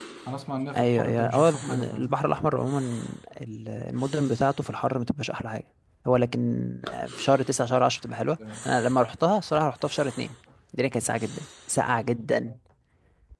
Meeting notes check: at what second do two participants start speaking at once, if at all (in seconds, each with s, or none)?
0.7 s